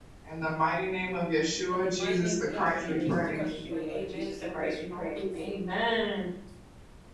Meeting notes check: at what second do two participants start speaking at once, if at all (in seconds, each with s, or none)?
1.7 s